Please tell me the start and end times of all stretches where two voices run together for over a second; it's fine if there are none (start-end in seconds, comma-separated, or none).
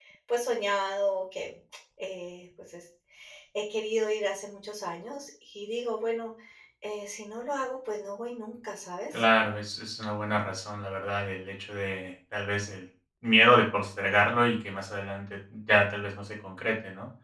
none